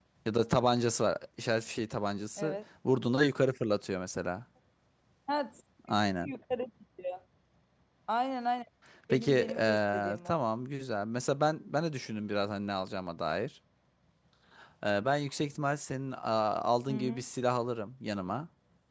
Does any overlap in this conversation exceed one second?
Yes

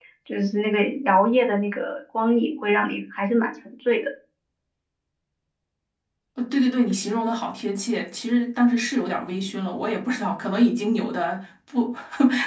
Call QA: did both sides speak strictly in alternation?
Yes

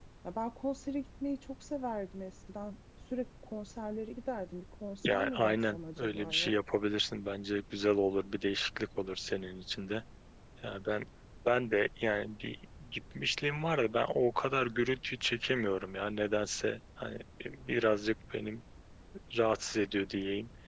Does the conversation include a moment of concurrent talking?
Yes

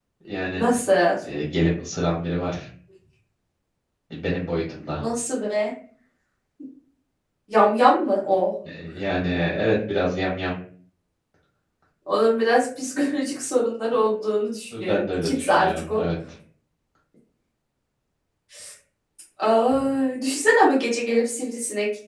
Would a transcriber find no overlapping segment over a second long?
No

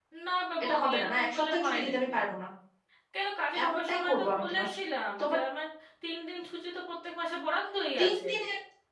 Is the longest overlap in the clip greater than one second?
Yes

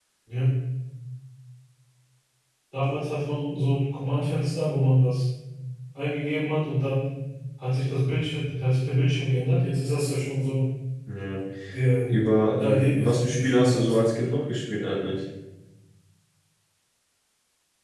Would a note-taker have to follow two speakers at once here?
Yes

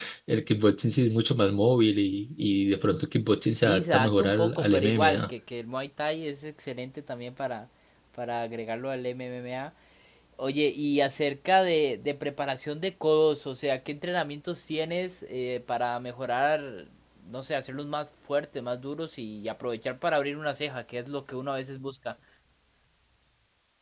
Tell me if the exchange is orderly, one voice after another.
No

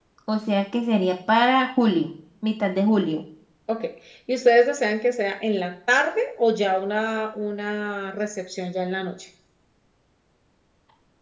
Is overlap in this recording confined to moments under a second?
Yes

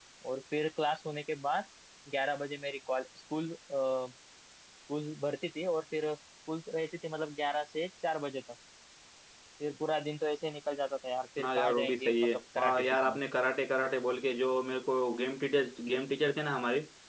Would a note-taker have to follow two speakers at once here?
Yes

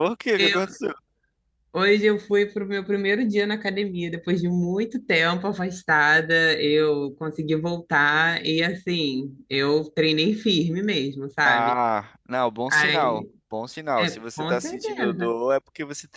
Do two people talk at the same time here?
Yes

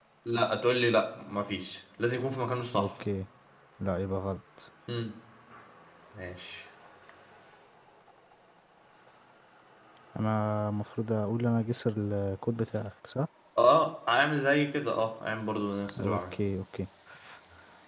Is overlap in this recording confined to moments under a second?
Yes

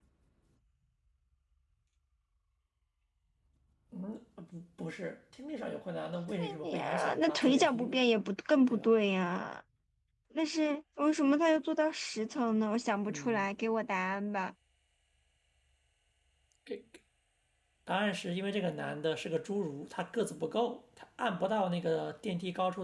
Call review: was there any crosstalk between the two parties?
Yes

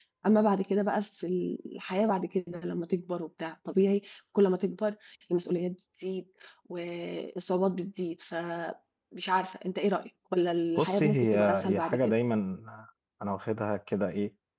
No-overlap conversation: No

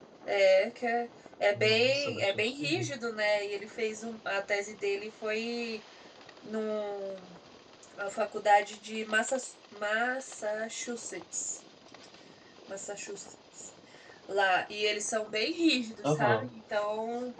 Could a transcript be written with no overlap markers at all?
No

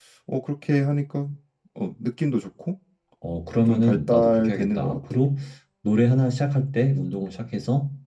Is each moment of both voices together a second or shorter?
No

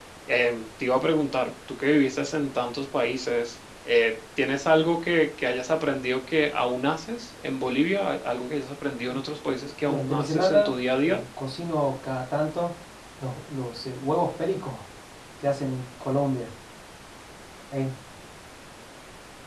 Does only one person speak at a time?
No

